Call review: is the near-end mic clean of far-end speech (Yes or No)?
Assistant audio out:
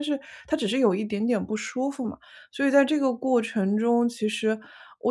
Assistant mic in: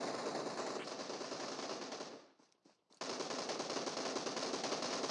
Yes